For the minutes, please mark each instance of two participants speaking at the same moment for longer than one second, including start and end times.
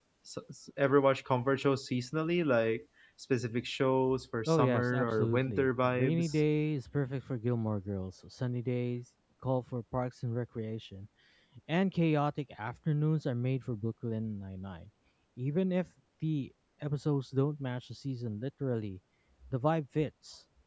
4.5-6.4

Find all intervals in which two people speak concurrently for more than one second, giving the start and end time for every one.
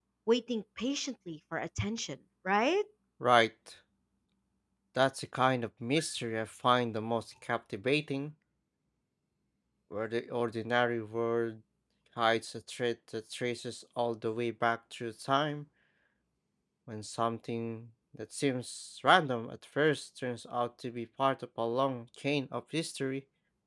none

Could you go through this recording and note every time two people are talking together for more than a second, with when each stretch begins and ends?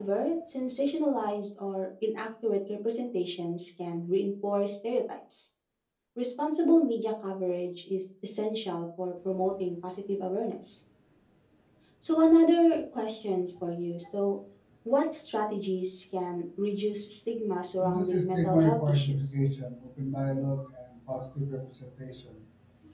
17.8-19.4

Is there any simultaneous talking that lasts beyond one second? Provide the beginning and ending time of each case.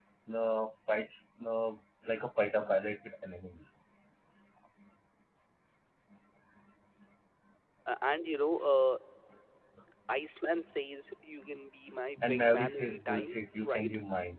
12.2-13.9

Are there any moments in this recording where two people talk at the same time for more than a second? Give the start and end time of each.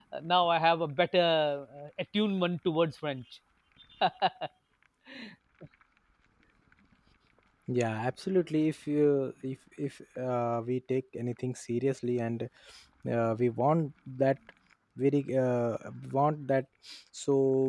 none

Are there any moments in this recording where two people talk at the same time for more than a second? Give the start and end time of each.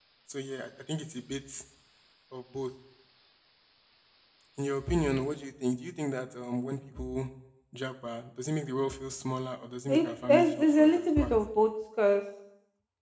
9.9-11.3

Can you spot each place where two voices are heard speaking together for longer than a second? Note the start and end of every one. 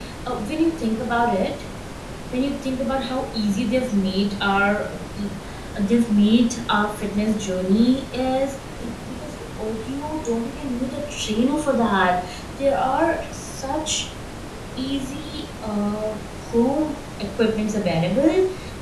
none

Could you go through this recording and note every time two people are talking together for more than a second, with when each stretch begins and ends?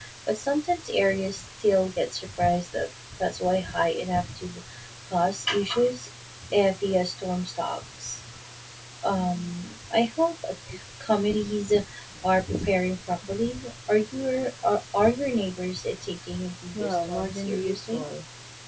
16.7-18.0

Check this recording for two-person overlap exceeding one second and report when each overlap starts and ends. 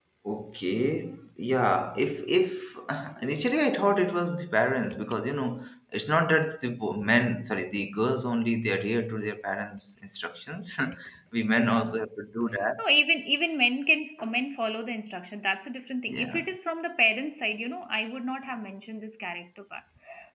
none

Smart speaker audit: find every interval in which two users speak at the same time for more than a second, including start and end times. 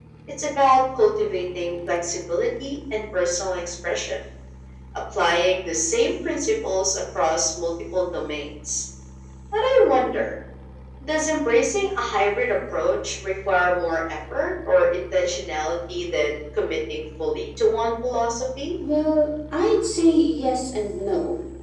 none

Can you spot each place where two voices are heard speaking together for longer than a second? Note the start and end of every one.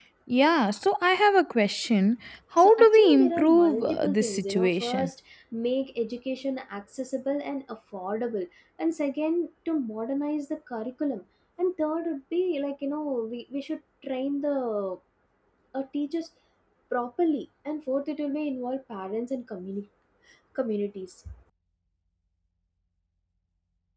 2.6-5.1

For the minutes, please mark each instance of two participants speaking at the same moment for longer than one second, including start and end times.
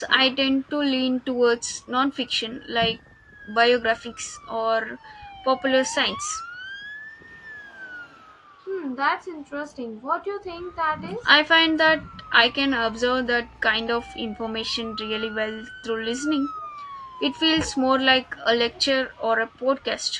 none

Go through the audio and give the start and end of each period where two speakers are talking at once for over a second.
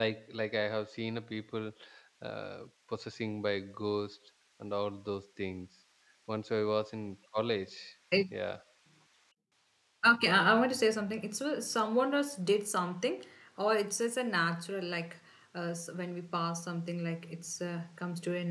none

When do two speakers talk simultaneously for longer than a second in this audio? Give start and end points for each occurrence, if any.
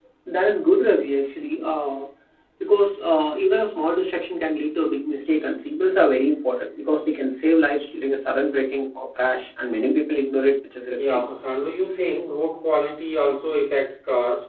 none

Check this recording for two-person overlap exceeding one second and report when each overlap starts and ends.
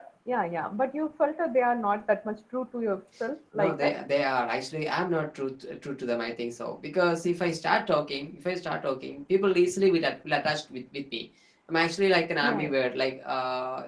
none

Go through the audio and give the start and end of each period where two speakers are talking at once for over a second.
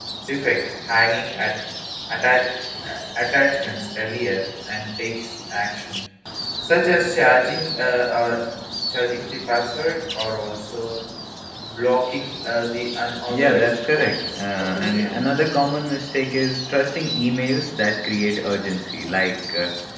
13.3-15.5

